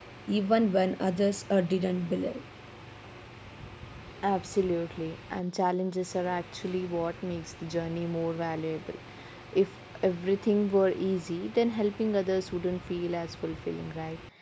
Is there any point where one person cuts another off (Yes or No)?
No